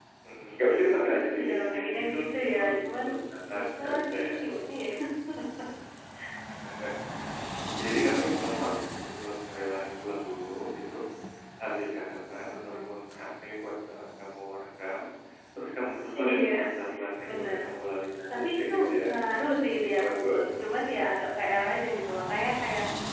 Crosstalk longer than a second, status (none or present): present